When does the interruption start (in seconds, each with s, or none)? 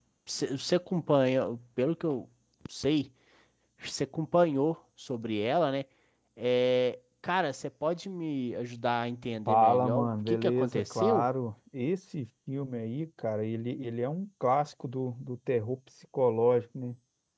9.5 s